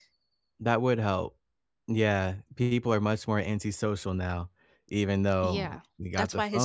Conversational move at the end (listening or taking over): taking over